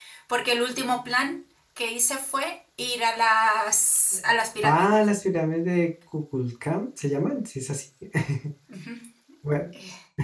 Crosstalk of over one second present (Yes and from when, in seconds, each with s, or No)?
No